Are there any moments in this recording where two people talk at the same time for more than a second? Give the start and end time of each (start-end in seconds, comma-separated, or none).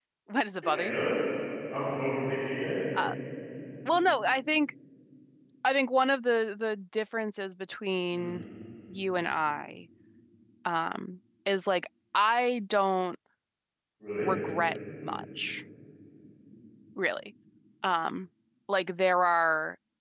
none